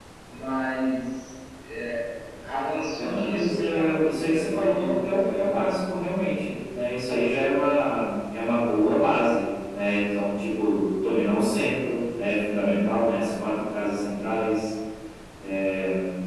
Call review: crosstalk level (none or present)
present